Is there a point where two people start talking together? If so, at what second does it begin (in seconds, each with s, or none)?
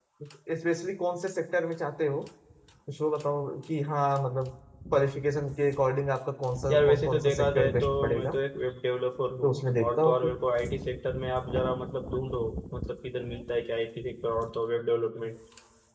6.7 s